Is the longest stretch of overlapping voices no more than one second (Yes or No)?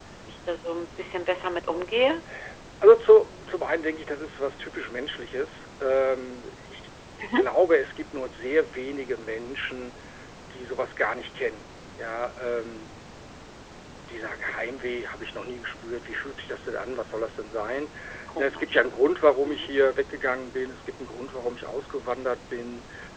Yes